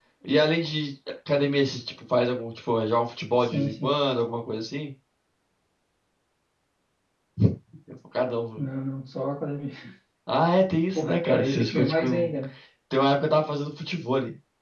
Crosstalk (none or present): present